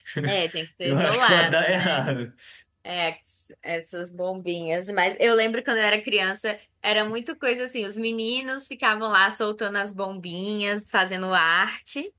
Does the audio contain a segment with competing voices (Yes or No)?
Yes